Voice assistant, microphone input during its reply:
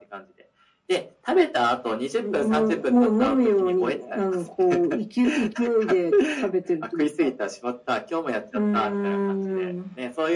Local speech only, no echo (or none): none